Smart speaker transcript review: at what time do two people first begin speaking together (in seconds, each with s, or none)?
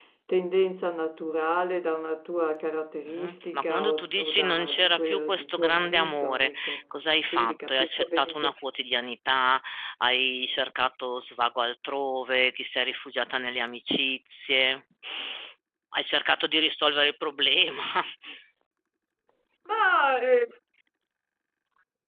3.1 s